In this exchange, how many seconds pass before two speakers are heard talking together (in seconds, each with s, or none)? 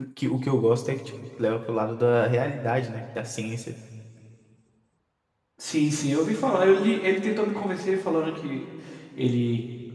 none